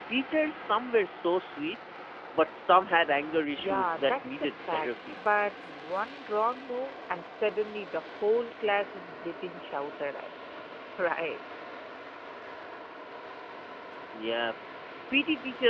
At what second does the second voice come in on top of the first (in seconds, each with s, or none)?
3.4 s